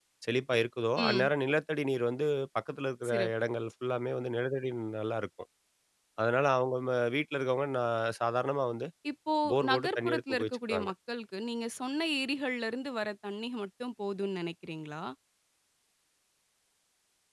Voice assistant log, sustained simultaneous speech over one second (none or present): present